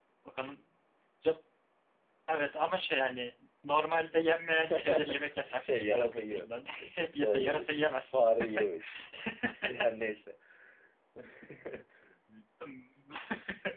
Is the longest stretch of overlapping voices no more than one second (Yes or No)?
No